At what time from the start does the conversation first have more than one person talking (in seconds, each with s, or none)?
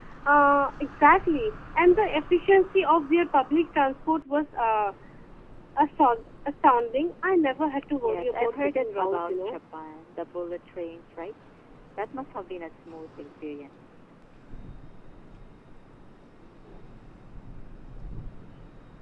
8.0 s